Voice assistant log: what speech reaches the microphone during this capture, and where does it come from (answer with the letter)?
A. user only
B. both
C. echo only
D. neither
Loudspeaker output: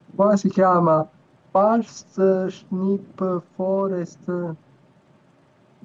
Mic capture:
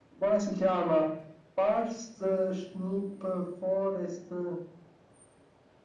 C